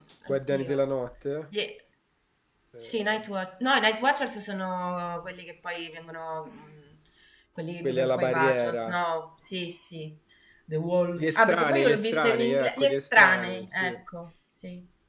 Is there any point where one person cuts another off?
Yes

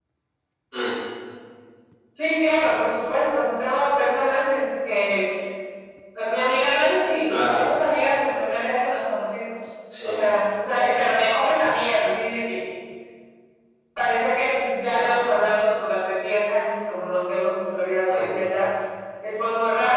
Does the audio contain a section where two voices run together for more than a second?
No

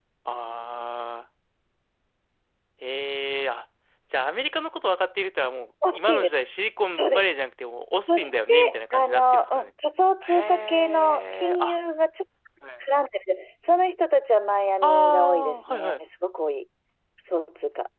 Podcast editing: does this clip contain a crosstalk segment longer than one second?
Yes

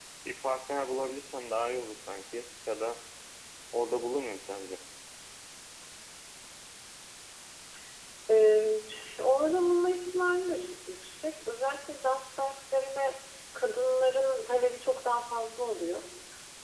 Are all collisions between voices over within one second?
Yes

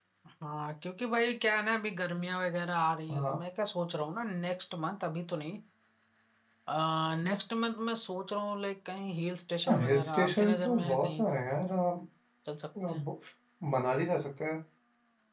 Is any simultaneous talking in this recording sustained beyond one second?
Yes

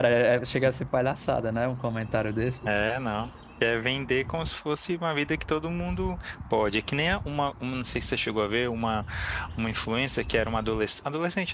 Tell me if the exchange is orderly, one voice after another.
Yes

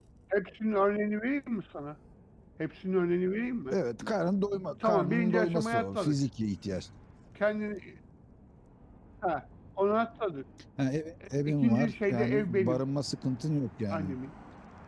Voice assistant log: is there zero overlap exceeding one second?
No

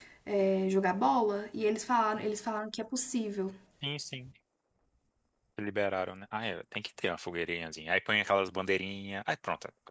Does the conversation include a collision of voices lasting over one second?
No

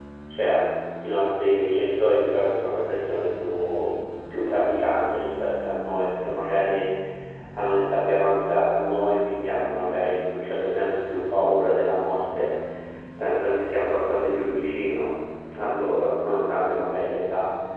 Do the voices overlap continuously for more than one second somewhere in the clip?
No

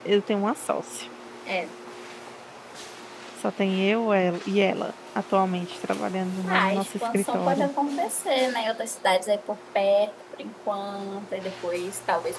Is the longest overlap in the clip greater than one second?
Yes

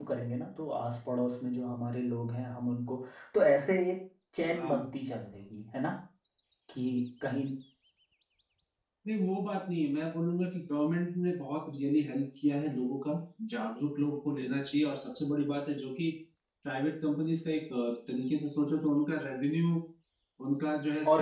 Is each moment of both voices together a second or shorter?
Yes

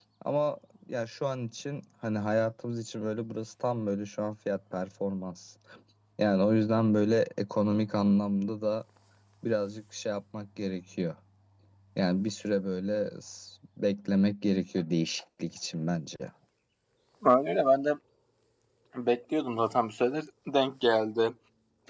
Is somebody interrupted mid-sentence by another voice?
No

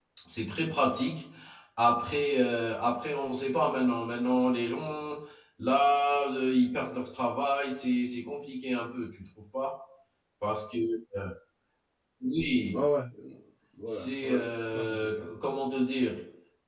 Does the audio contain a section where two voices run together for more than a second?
Yes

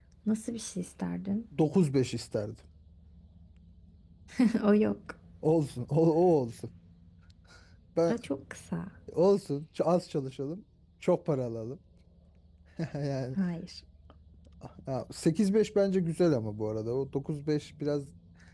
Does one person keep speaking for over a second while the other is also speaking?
No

